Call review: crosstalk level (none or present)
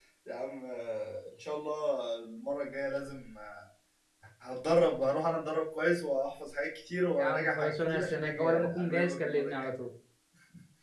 present